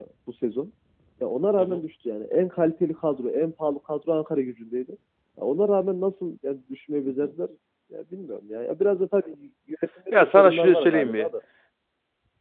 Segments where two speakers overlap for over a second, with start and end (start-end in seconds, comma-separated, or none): 10.1-11.3